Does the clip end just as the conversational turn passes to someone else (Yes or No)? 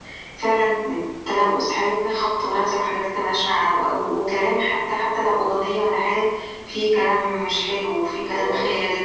Yes